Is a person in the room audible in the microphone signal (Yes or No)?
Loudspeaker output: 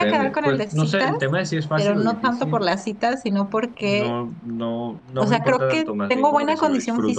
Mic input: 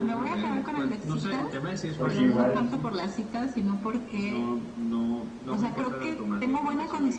Yes